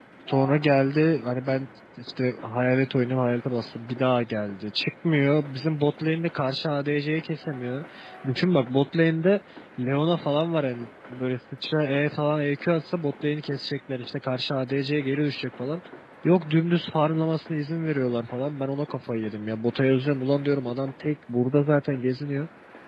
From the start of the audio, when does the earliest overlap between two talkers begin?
none

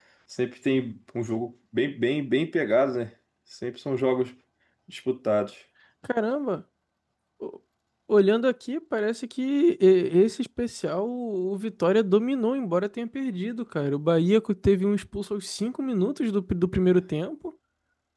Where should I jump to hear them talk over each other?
none

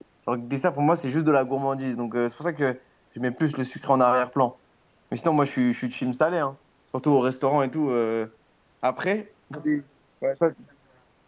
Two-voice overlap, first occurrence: none

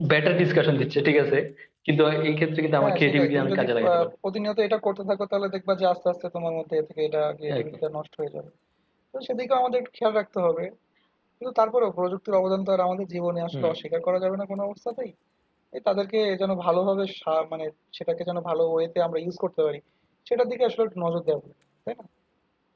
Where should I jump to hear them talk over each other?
2.8 s

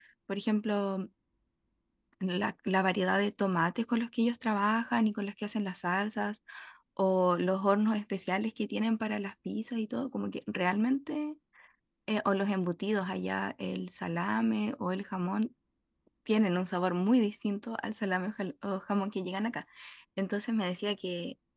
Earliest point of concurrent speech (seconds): none

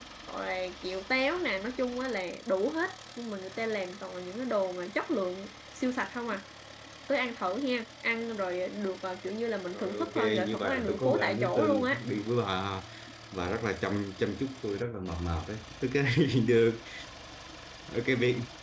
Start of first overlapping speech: 9.7 s

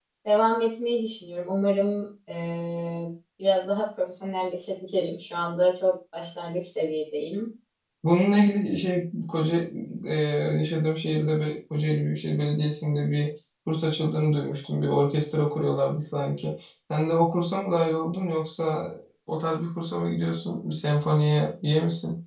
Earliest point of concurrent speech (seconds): none

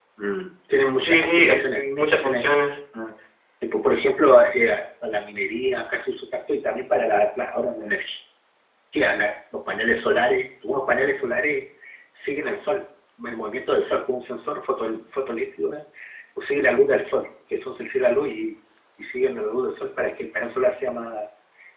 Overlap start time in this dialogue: 1.0 s

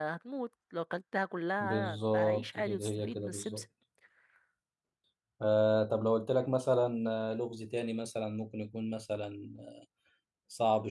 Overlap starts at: 1.6 s

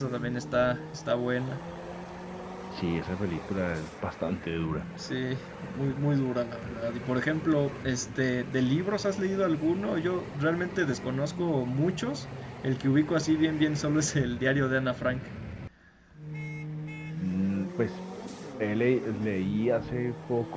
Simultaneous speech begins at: none

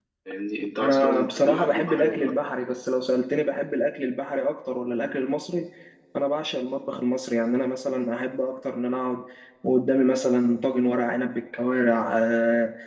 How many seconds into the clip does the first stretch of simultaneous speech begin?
0.8 s

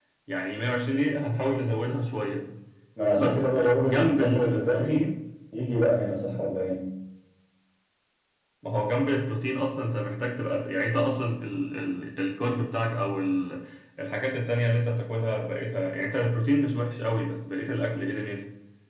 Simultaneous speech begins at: 3.1 s

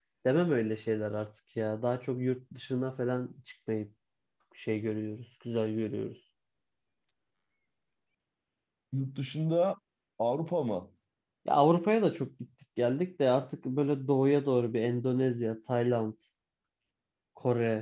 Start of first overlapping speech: none

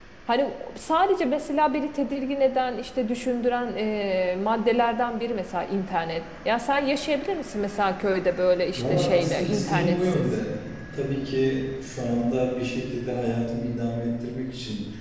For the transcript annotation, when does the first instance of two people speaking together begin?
8.8 s

